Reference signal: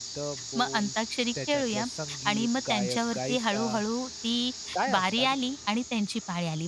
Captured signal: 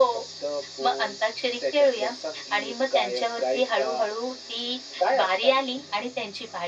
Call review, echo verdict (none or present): present